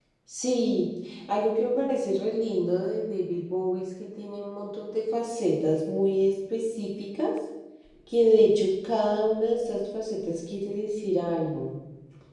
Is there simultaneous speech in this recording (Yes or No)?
No